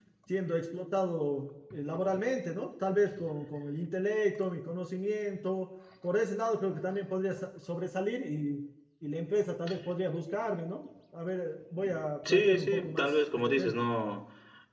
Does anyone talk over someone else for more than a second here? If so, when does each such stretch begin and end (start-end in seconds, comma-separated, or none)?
12.3-13.8